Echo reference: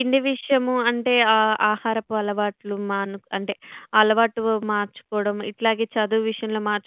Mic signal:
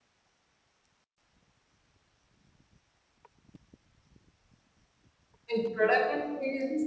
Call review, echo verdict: none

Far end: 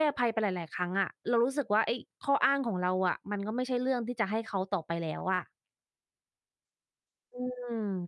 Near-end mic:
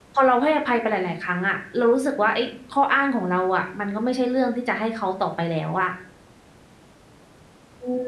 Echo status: present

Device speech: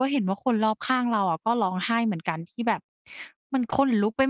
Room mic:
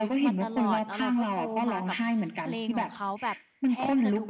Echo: present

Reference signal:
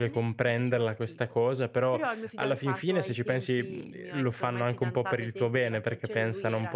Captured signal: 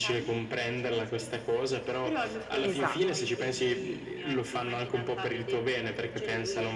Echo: present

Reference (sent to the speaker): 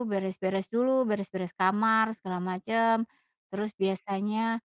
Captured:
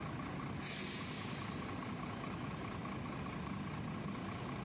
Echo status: none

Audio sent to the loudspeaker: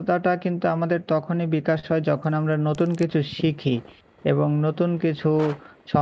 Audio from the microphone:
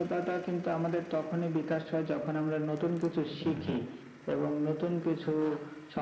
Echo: present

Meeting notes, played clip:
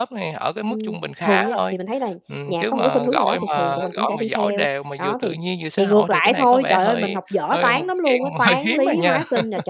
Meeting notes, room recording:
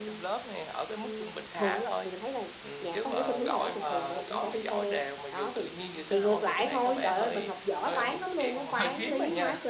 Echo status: present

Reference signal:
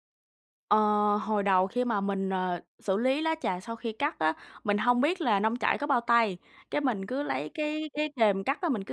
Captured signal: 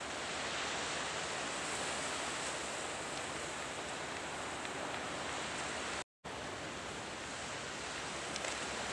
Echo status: none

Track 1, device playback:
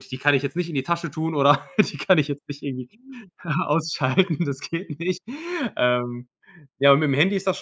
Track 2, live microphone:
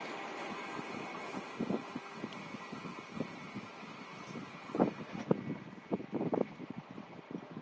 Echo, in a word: none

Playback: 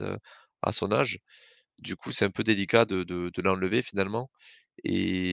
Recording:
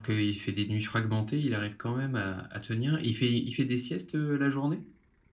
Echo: none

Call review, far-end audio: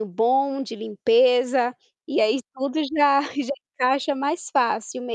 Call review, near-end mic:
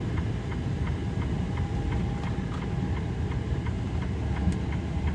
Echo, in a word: none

